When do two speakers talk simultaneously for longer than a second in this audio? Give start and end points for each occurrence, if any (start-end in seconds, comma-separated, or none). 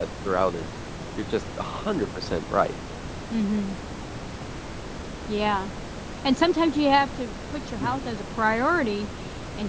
none